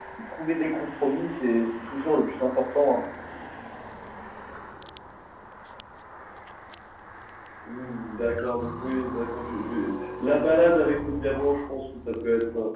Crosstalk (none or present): none